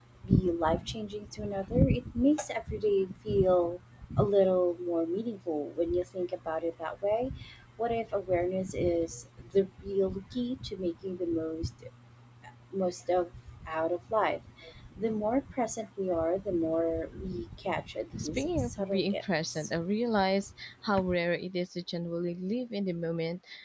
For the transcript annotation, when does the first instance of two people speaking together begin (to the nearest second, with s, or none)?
18 s